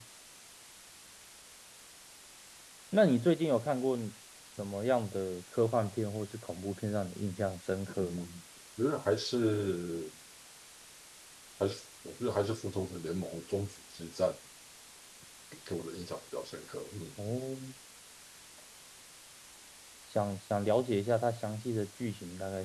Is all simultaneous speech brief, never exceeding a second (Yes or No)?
Yes